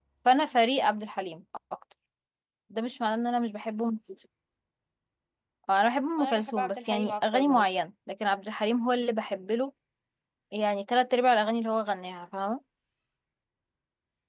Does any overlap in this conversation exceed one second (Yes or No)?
Yes